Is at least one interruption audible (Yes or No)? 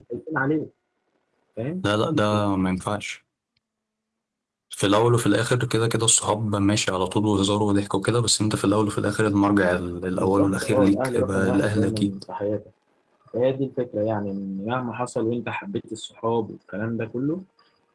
Yes